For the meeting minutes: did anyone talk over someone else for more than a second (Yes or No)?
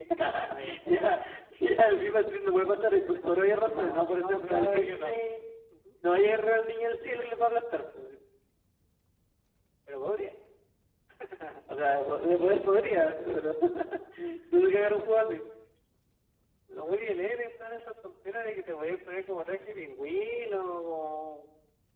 Yes